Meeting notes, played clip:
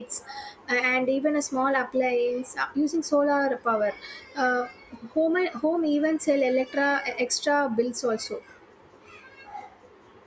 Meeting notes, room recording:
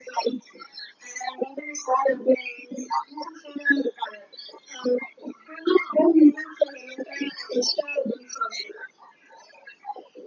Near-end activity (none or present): none